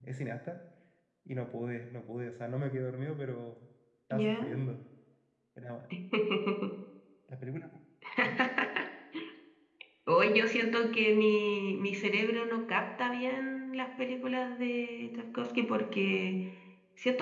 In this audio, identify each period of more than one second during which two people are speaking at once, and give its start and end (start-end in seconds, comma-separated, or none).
none